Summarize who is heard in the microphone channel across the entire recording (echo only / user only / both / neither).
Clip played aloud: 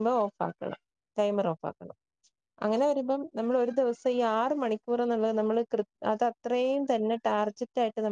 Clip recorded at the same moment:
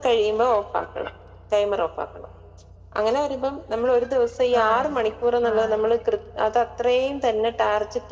both